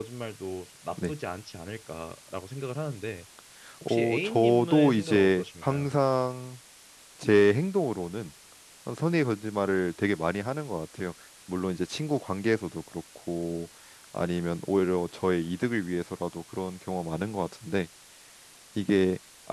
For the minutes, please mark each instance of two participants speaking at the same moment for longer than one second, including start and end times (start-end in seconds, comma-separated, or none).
3.9-5.9